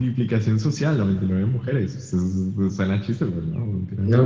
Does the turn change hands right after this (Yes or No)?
Yes